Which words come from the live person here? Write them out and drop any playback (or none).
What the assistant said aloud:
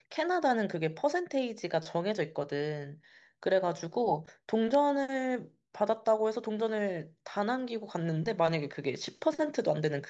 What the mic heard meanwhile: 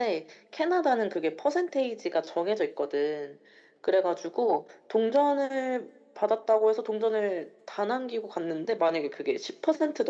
none